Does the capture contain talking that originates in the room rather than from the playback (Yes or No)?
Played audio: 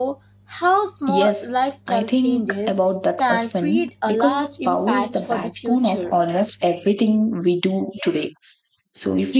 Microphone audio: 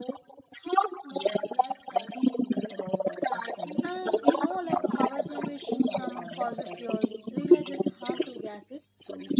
Yes